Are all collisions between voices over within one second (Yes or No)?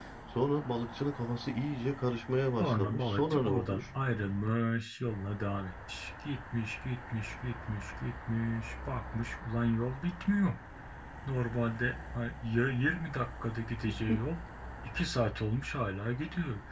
No